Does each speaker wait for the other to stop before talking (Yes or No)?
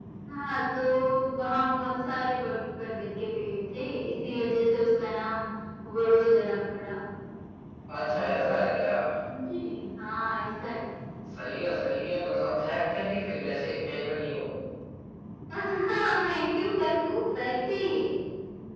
Yes